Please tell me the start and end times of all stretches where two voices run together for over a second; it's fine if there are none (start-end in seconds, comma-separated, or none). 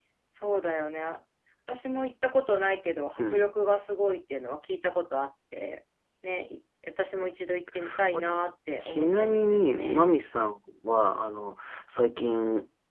8.8-10.0